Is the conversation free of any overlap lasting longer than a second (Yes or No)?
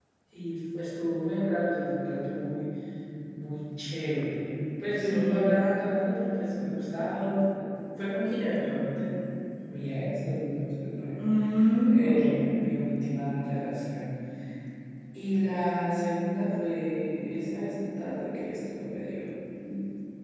Yes